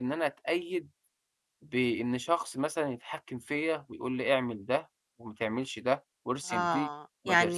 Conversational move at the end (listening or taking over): taking over